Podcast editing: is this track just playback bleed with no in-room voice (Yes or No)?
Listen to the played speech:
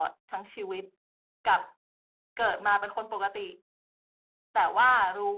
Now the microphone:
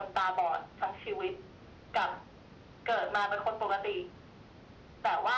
Yes